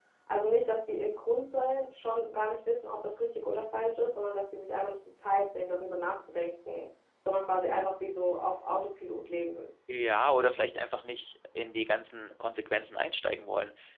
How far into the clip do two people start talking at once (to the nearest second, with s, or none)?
none